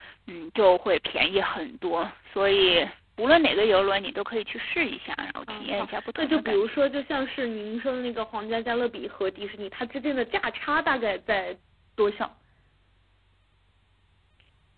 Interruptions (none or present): present